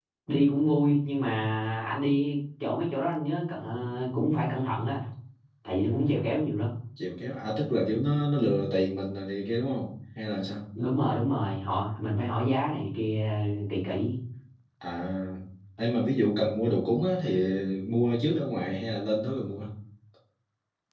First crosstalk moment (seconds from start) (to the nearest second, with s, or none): none